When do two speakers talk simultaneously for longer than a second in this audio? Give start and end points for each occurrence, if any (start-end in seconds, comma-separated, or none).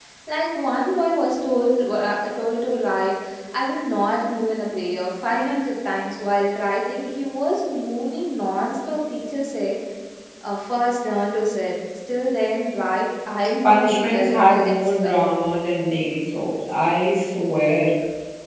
13.6-15.2